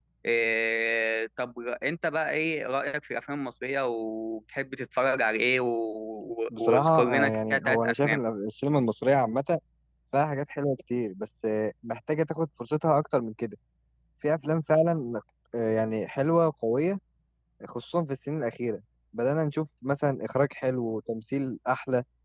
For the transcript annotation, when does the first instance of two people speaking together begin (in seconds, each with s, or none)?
6.6 s